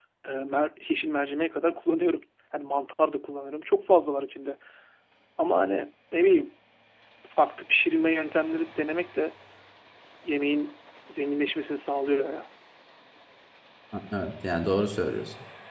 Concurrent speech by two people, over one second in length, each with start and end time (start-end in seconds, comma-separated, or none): none